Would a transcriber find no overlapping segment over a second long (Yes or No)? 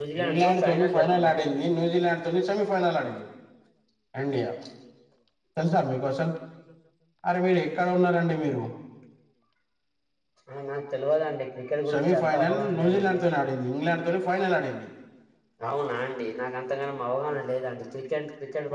No